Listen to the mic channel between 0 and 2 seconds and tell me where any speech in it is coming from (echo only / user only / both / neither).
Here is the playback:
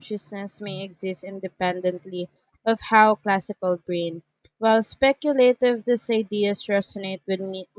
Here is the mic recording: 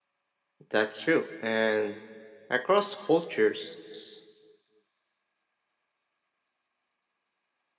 user only